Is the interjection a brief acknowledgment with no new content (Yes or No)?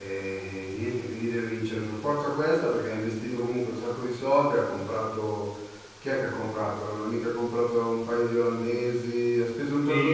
No